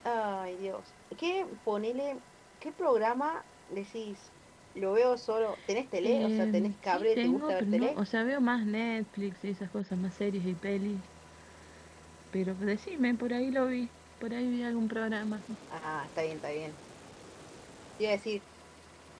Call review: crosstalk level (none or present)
present